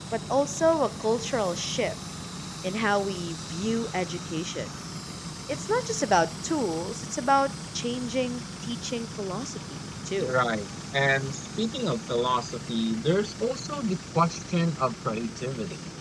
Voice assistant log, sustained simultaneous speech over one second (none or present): none